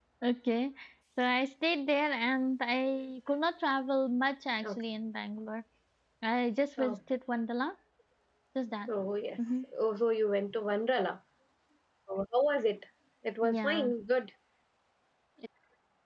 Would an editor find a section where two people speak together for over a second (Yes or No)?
No